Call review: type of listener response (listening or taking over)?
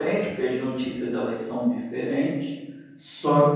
listening